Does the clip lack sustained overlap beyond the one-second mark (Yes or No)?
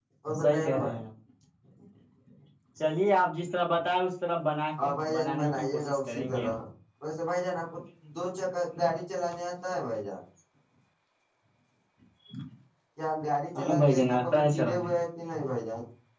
No